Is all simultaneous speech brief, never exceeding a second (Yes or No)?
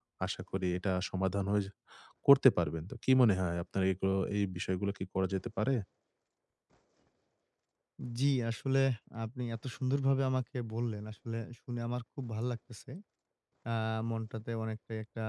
Yes